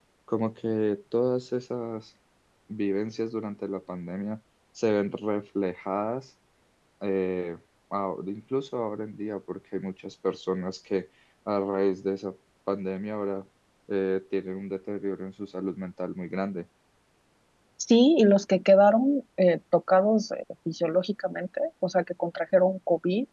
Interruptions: none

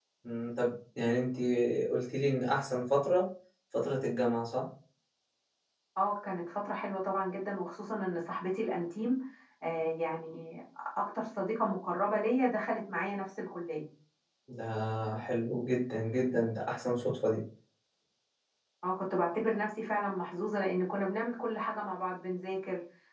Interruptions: none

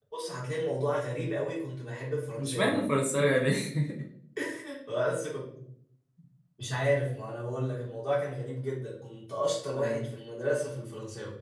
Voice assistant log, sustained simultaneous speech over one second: none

